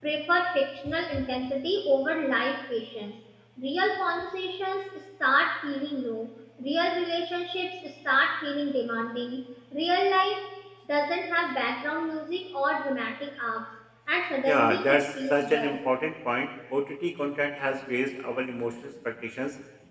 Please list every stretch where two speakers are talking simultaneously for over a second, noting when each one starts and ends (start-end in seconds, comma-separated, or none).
14.4-15.7